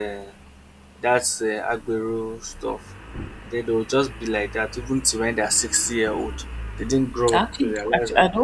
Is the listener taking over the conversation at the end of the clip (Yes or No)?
Yes